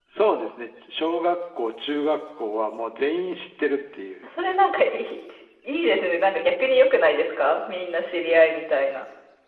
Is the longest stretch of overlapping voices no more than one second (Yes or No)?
Yes